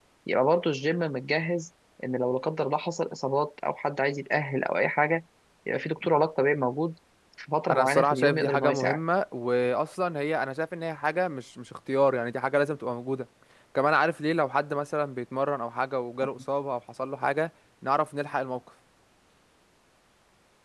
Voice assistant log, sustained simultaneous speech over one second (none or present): present